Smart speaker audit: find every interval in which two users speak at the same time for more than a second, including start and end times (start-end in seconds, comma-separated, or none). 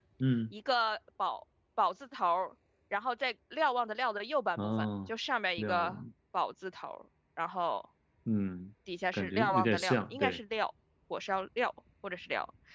9.1-10.4